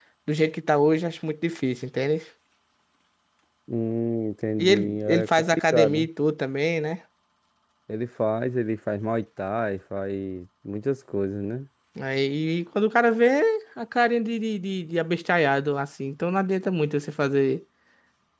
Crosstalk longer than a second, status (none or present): present